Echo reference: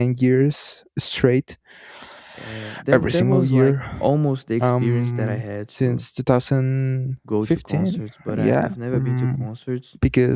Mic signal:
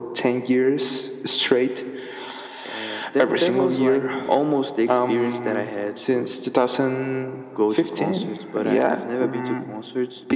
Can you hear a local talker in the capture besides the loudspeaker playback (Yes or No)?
No